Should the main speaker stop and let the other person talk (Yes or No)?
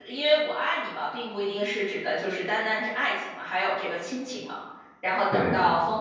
No